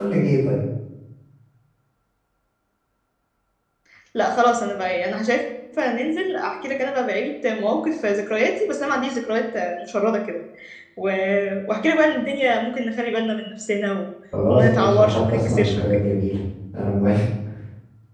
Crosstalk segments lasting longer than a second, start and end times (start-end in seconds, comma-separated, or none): 14.5-16.0